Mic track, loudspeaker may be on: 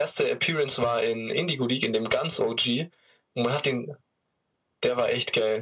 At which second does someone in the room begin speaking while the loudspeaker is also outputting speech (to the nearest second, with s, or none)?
none